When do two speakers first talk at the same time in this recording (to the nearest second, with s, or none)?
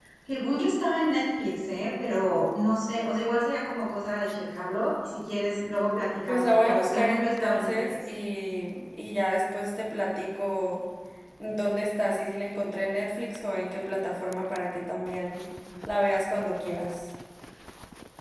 6 s